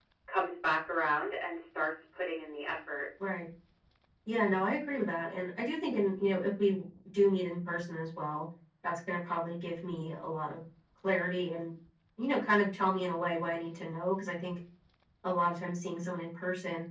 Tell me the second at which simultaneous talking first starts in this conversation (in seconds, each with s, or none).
none